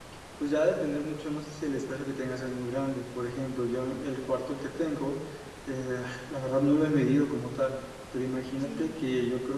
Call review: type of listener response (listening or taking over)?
listening